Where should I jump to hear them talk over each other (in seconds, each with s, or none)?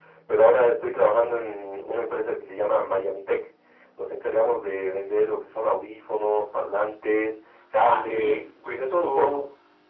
7.8 s